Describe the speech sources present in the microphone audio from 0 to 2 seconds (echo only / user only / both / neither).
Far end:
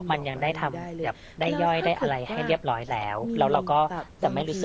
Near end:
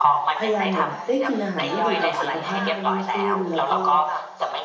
both